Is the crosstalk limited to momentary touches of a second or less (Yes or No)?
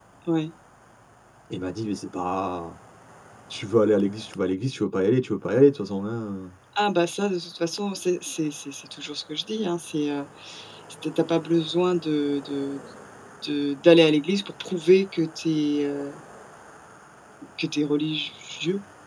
Yes